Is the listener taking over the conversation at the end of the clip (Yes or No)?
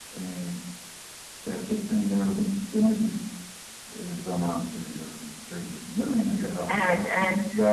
Yes